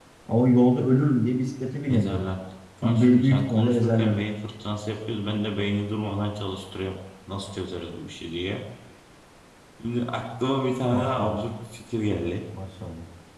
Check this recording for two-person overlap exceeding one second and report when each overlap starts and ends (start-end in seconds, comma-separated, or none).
2.8-4.2